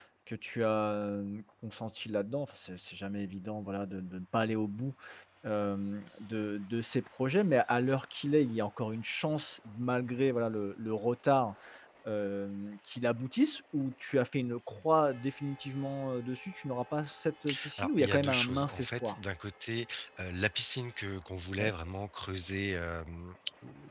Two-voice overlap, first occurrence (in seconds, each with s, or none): 17.8 s